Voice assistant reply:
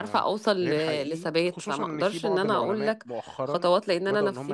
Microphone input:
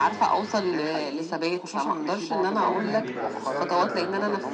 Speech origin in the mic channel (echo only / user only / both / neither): both